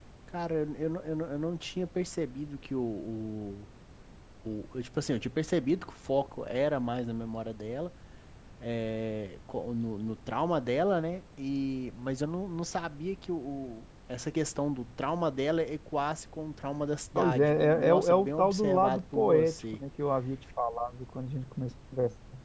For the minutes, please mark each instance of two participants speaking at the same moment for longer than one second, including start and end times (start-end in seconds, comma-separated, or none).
17.1-19.8